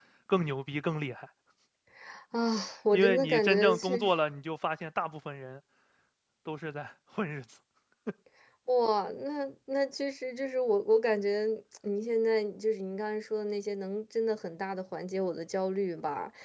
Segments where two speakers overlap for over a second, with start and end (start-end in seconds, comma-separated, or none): 2.9-4.1